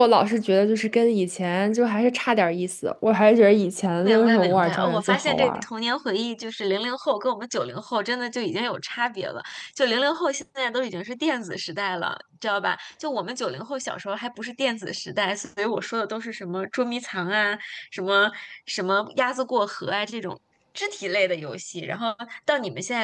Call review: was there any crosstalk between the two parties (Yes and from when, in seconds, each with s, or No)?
Yes, from 4.0 s